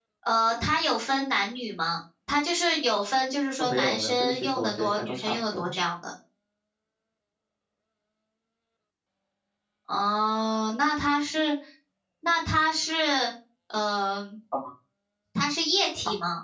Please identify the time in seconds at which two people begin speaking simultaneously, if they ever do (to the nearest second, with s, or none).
4 s